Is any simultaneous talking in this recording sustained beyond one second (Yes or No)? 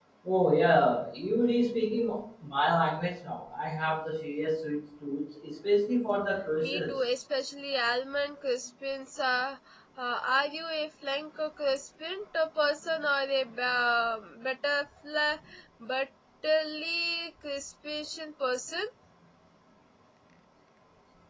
No